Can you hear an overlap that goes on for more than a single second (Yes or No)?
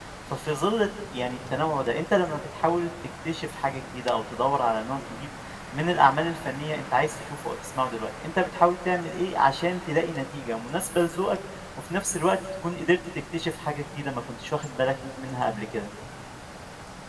No